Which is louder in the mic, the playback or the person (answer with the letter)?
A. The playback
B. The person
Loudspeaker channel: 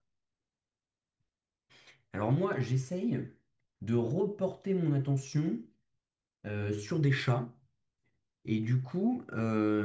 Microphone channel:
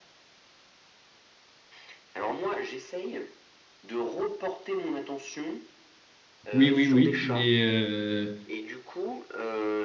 B